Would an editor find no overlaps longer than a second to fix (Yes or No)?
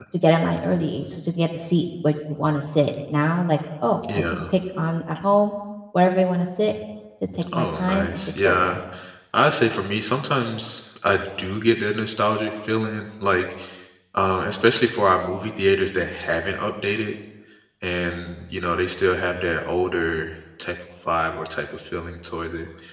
No